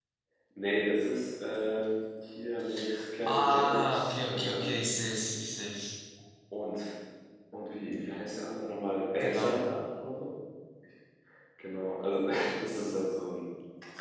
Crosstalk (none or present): present